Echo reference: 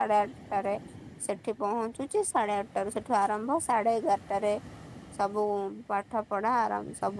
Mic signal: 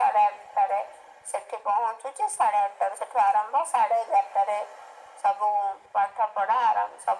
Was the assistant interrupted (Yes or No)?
No